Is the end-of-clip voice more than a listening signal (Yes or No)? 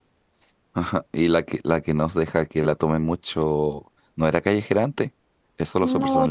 Yes